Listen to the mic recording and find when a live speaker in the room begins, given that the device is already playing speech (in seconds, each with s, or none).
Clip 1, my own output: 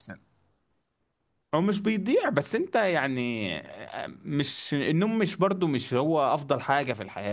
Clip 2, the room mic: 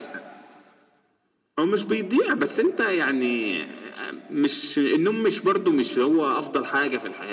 none